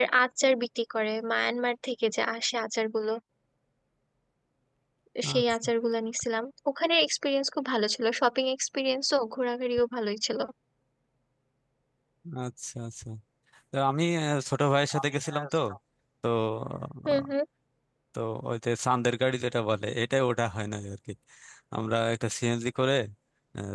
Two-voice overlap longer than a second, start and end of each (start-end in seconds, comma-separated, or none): none